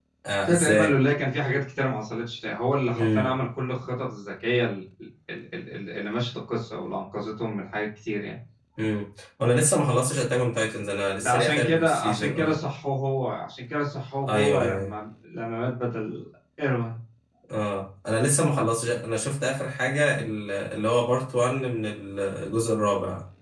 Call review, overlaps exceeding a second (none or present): present